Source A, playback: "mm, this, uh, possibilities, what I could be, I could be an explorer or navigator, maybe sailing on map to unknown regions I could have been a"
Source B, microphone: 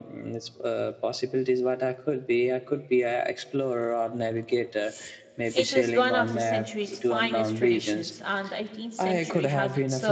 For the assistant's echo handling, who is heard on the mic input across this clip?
both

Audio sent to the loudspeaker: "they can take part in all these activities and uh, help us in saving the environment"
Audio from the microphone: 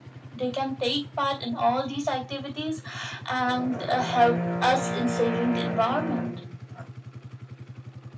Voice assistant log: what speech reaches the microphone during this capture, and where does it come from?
echo only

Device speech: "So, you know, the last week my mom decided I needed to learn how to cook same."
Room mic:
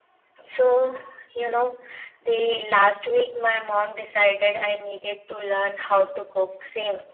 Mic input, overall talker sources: echo only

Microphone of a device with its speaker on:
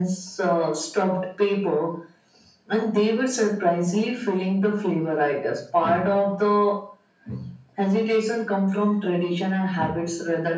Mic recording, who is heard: echo only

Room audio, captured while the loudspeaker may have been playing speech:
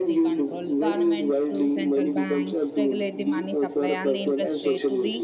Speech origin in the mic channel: both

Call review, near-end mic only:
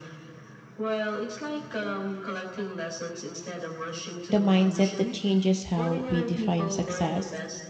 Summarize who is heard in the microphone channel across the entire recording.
both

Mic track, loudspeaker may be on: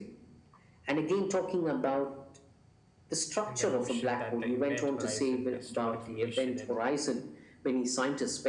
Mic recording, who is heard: both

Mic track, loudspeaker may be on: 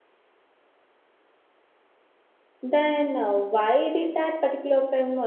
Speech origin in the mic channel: user only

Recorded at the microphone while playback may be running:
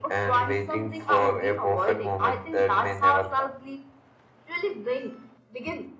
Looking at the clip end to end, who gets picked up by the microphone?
echo only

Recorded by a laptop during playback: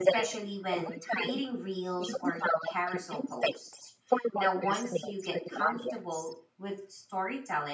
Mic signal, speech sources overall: both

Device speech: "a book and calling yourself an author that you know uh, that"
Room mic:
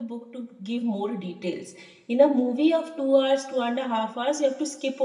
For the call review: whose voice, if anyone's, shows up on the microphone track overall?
user only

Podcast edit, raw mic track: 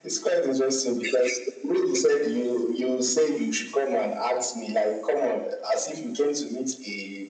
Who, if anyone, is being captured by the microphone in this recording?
echo only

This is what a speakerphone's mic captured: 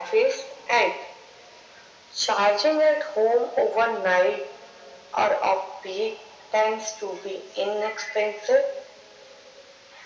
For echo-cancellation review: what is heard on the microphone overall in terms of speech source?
echo only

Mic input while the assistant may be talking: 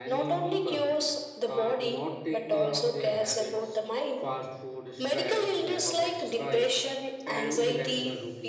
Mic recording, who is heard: both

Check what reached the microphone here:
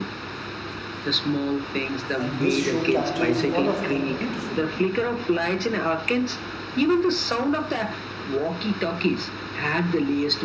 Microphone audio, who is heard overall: both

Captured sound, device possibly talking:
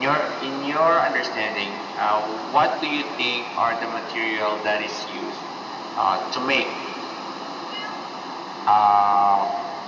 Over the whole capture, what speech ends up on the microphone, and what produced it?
echo only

